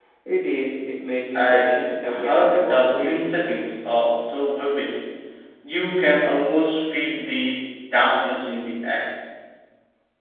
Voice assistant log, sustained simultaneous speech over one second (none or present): present